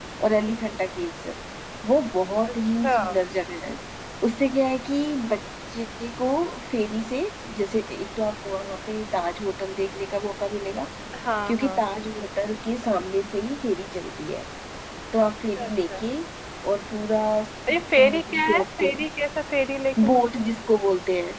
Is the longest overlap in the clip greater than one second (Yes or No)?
Yes